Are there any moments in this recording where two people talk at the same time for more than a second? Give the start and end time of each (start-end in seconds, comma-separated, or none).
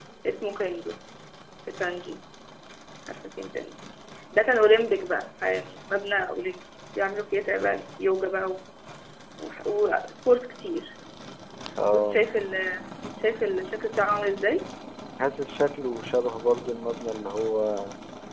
none